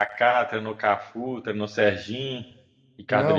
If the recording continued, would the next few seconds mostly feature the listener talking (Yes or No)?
Yes